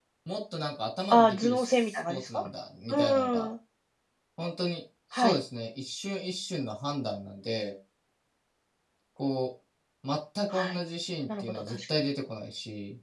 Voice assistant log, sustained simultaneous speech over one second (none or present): present